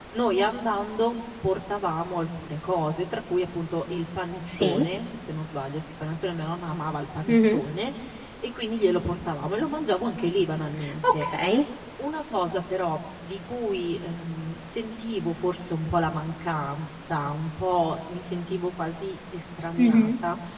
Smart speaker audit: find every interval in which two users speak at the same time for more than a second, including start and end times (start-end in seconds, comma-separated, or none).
none